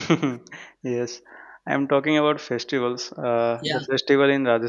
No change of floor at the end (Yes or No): Yes